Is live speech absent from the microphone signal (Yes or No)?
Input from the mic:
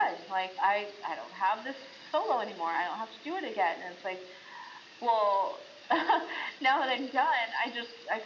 Yes